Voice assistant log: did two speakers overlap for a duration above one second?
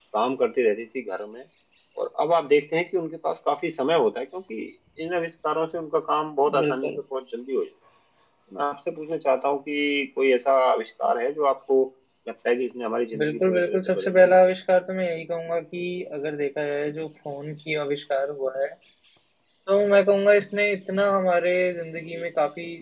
Yes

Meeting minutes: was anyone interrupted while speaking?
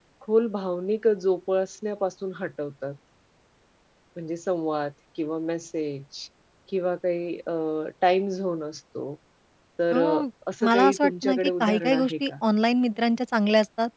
Yes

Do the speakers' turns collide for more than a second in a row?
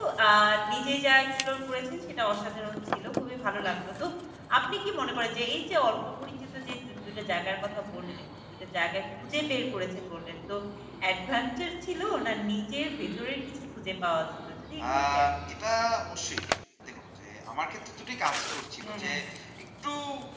No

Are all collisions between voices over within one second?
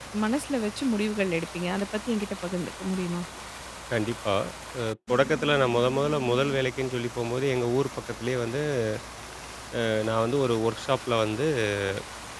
Yes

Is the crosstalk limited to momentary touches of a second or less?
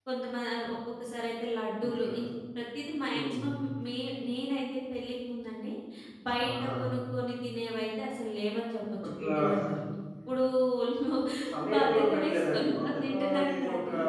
No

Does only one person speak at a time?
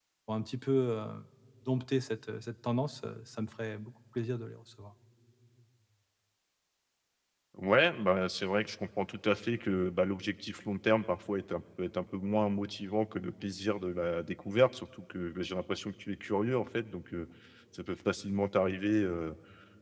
Yes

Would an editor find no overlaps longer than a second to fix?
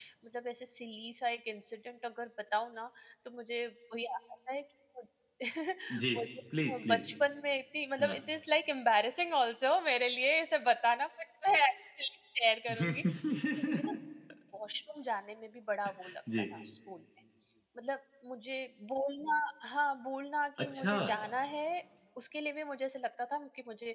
Yes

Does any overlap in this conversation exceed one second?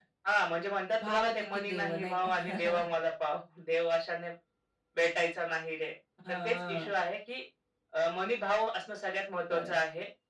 Yes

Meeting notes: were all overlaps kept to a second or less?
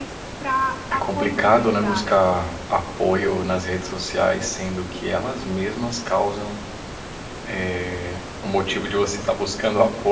No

